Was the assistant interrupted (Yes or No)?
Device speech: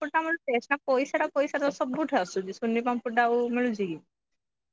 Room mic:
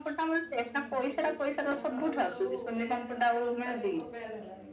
Yes